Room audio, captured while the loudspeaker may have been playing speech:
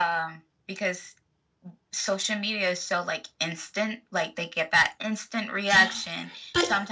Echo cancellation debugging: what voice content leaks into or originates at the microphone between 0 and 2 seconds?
echo only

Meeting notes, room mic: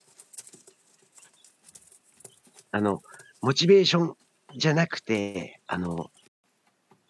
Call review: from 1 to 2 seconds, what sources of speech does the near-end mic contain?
neither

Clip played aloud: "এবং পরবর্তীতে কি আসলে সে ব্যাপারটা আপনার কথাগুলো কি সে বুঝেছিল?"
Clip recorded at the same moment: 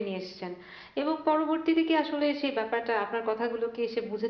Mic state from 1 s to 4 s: echo only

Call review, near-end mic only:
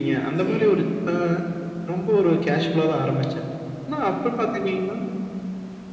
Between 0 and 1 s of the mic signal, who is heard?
both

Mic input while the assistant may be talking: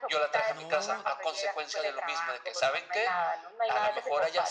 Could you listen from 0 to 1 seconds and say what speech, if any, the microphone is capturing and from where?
both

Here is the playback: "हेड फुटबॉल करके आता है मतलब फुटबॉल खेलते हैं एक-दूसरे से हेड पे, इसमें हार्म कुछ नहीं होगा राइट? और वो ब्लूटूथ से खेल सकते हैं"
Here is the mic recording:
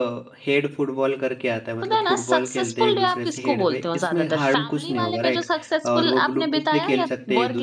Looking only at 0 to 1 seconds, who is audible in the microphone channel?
echo only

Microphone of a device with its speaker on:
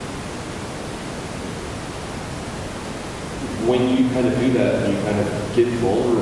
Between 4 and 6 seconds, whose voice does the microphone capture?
user only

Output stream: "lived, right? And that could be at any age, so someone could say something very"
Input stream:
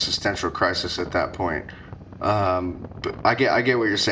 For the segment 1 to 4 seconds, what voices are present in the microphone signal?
user only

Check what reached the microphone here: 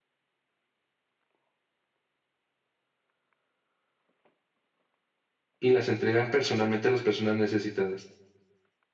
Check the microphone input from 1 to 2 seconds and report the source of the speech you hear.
neither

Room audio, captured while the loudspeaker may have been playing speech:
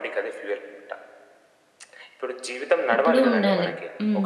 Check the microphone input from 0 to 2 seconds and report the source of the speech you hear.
echo only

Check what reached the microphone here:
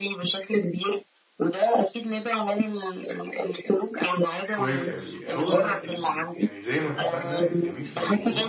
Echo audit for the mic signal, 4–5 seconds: both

